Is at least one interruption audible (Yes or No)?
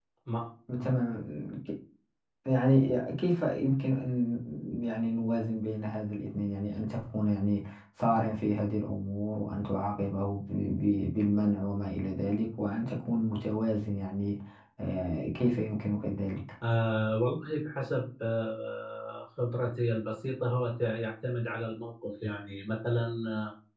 No